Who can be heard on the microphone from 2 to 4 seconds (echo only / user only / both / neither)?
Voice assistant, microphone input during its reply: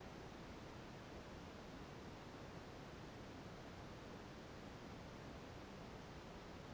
neither